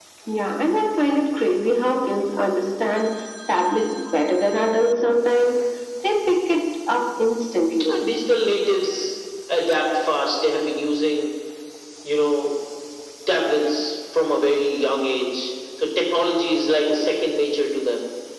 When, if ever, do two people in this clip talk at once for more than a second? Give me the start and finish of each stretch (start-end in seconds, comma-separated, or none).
none